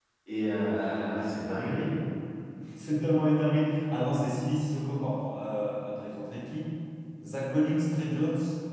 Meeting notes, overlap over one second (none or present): none